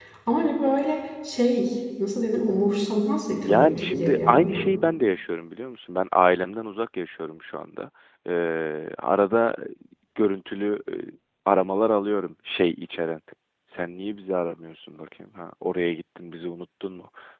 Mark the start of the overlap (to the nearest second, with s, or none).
3 s